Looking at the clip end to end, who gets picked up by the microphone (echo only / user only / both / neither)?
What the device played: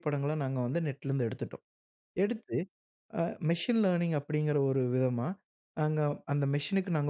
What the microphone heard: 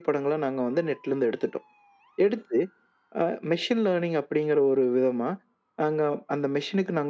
echo only